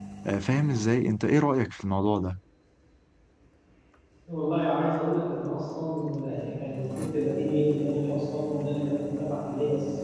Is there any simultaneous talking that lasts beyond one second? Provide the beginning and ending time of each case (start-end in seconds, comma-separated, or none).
none